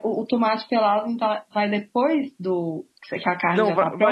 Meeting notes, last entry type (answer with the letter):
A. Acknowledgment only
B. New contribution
B